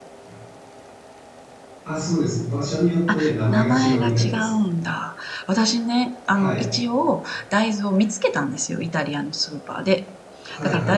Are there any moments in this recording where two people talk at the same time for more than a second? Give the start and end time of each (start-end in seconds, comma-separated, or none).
3.1-4.5